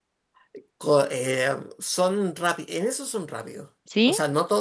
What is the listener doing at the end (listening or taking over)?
listening